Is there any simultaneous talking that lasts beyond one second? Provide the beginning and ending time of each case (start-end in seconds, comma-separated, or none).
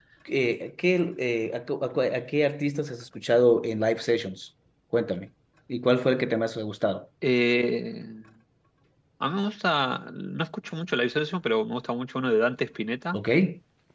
none